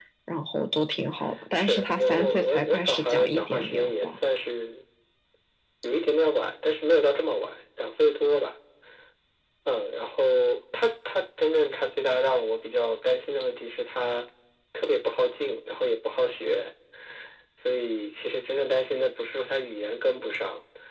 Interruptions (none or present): present